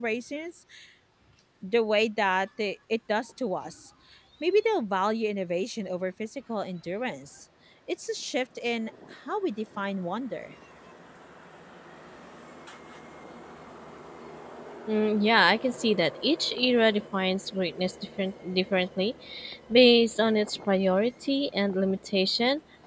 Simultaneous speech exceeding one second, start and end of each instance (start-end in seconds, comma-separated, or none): none